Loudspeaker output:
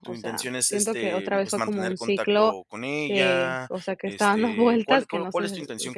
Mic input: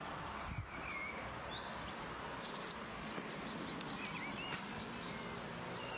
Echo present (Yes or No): No